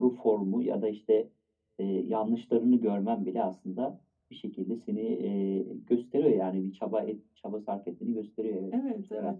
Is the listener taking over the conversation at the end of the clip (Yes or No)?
Yes